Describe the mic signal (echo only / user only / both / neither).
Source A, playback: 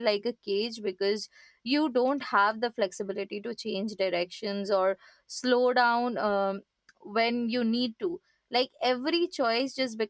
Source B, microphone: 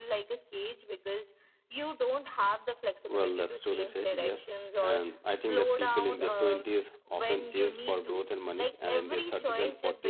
both